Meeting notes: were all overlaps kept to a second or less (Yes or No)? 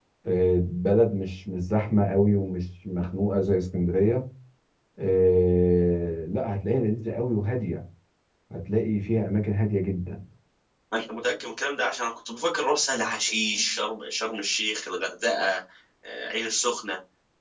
Yes